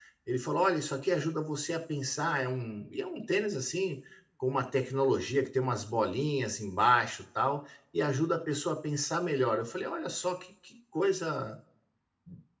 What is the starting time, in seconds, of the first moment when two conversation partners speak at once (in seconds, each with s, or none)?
none